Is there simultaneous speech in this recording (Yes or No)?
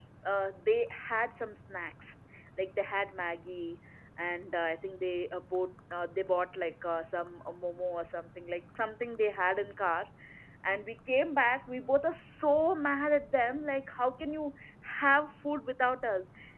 No